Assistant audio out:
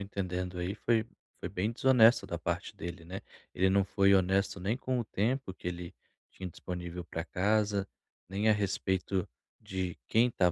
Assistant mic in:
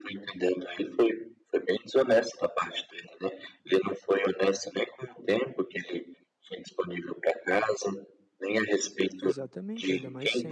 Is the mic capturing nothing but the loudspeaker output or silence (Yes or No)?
No